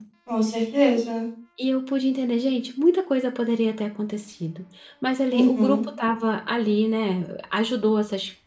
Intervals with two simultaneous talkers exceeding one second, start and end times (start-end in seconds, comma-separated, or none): none